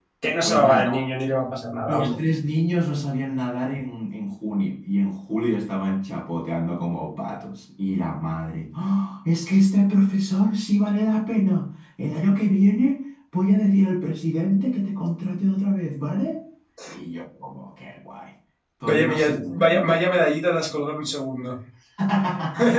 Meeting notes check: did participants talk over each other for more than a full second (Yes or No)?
No